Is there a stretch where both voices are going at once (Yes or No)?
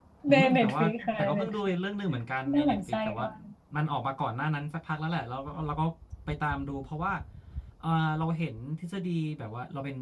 Yes